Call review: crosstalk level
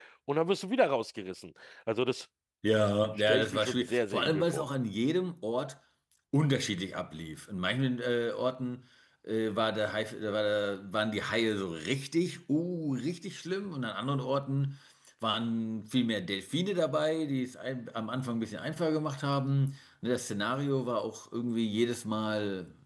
present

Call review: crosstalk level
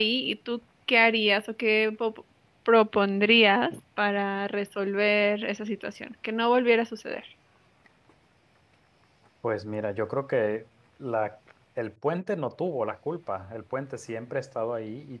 none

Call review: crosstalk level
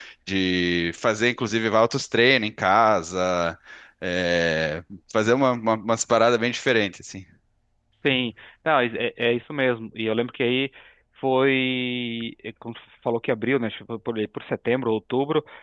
none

